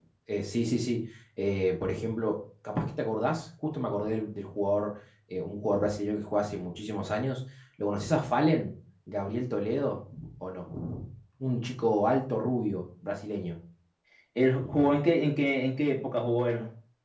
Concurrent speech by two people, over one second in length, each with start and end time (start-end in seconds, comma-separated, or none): none